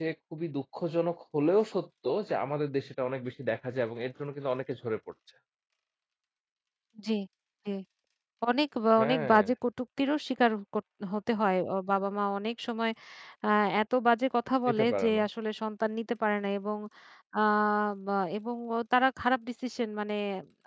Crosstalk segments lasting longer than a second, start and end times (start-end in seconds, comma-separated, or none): none